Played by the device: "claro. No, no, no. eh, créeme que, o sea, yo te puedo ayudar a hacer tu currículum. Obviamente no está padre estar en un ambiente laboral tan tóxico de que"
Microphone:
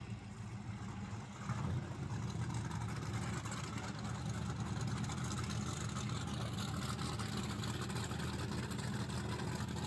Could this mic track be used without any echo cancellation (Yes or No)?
Yes